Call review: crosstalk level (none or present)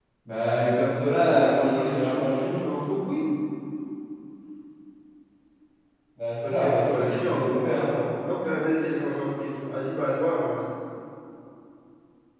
present